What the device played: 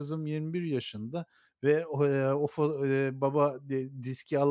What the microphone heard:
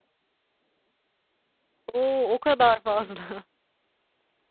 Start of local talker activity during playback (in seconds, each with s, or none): 1.9 s